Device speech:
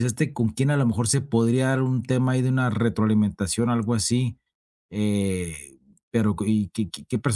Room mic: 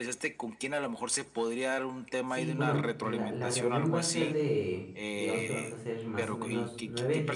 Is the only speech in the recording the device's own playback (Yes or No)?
No